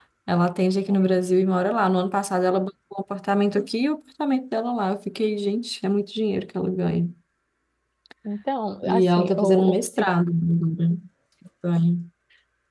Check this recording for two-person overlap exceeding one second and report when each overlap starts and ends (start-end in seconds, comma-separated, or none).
8.8-10.1